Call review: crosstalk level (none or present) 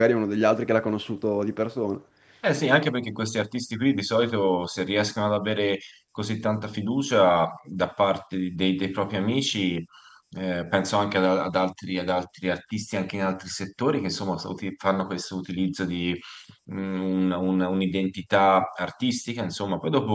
none